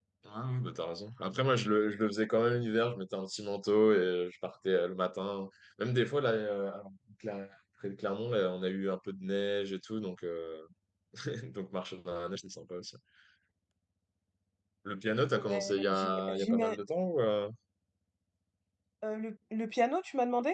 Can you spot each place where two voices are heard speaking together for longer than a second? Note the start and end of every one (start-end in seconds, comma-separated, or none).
15.3-16.7